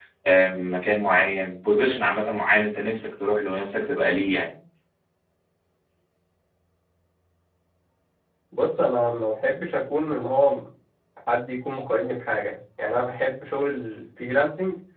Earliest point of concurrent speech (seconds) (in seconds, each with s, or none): none